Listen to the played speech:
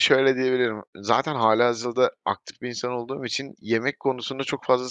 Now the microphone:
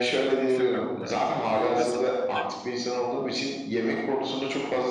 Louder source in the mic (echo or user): echo